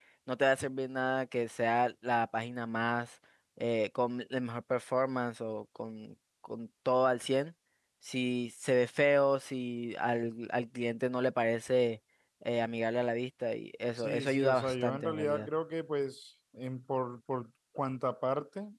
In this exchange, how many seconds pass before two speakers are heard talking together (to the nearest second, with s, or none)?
14 s